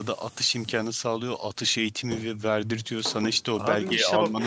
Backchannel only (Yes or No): No